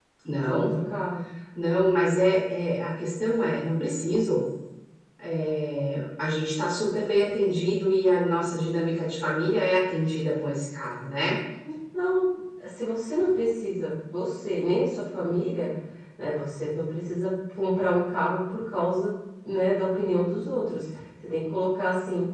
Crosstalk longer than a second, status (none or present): none